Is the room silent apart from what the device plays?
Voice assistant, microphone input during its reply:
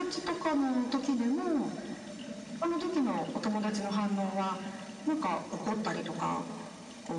Yes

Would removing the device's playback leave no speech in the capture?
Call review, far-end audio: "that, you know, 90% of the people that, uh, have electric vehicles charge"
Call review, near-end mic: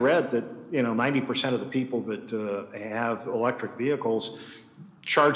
Yes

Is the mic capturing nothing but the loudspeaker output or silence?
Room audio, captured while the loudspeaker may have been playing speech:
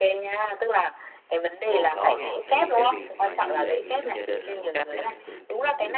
No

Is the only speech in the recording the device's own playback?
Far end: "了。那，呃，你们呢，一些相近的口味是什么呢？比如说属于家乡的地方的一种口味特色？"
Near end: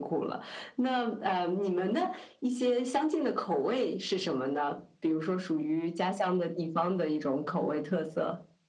Yes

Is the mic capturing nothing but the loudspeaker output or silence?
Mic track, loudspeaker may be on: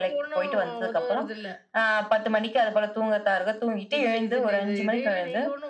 No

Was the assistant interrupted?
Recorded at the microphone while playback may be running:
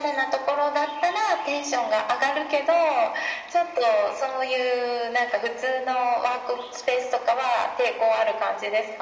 No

